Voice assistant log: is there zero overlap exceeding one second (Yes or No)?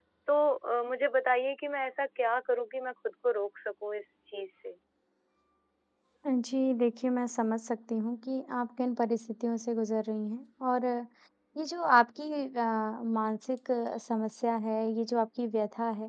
Yes